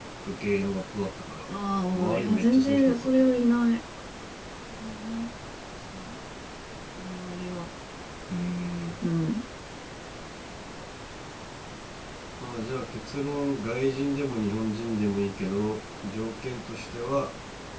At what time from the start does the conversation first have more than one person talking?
1.9 s

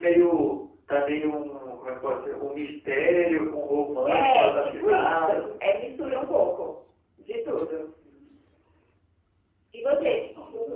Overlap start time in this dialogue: 4.1 s

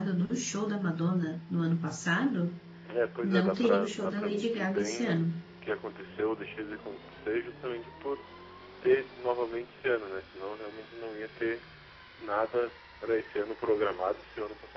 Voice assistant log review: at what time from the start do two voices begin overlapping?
3.2 s

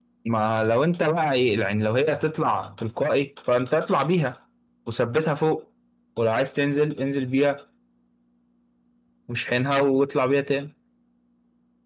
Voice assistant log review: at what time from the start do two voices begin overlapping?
none

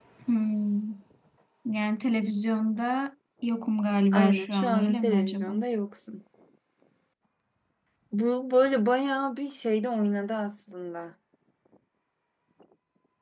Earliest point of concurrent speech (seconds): 4.1 s

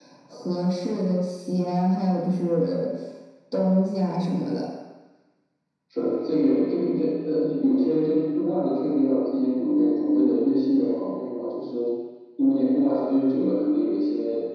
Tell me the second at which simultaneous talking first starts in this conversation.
none

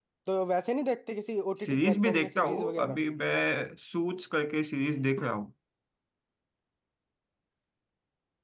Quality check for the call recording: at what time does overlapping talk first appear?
1.6 s

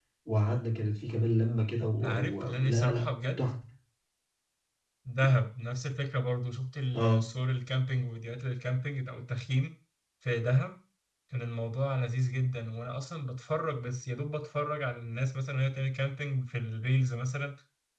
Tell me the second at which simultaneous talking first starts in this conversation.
2.0 s

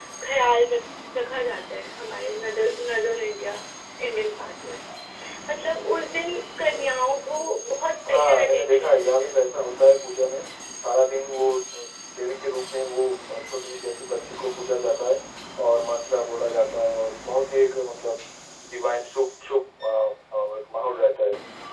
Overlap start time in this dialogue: 8.1 s

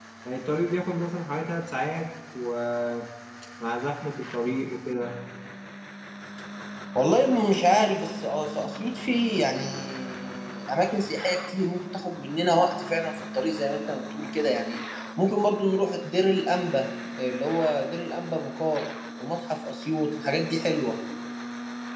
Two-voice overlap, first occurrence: none

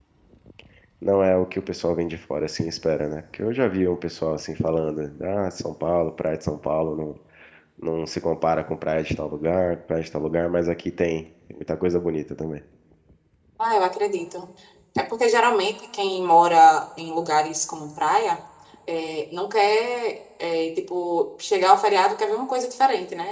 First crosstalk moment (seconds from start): none

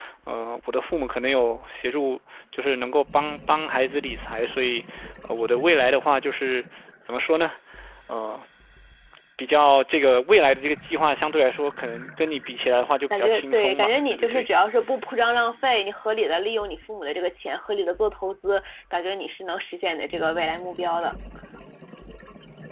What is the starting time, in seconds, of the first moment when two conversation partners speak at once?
13.1 s

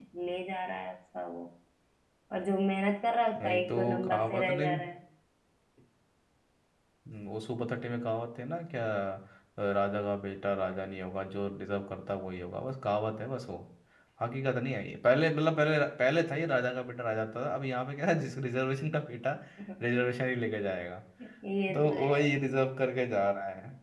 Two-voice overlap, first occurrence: 3.4 s

